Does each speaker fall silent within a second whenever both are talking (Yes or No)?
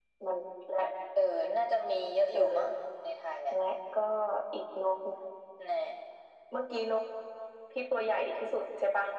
Yes